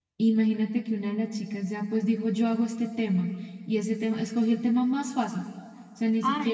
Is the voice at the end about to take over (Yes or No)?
Yes